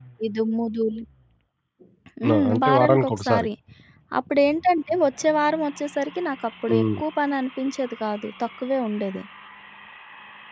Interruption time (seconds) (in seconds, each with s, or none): 2.3 s